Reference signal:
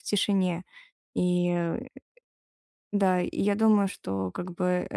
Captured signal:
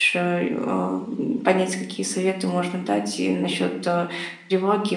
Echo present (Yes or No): No